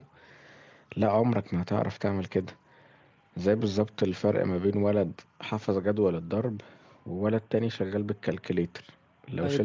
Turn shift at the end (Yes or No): No